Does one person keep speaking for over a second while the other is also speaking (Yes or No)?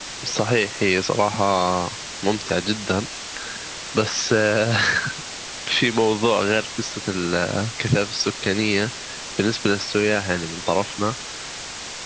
No